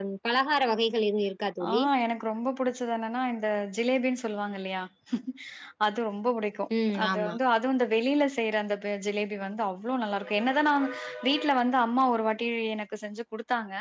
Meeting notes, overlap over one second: none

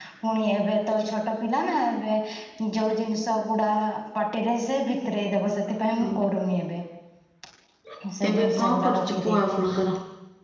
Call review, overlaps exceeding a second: present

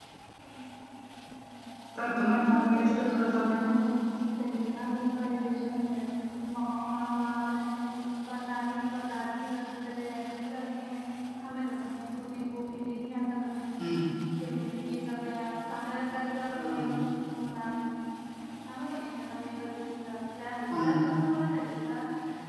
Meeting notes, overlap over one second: present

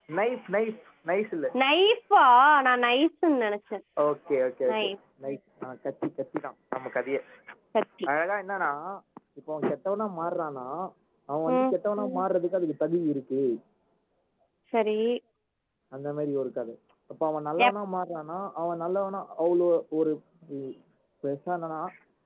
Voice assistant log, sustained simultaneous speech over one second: none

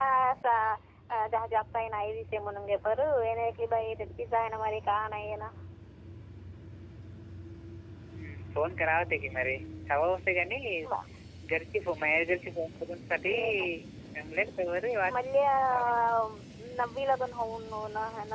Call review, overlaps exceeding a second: none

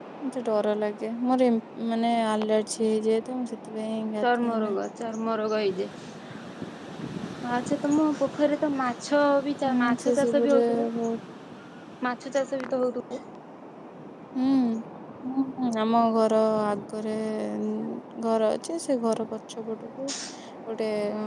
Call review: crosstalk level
present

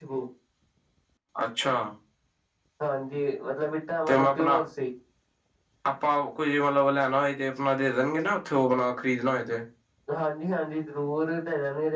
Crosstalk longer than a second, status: none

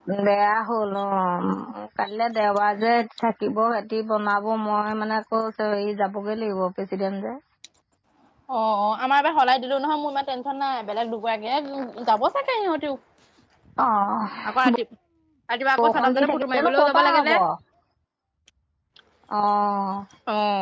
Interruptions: present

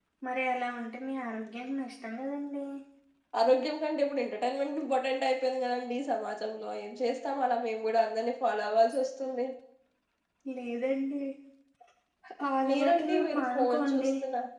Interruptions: present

